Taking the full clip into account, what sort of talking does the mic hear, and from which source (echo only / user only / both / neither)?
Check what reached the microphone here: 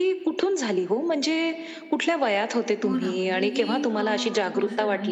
both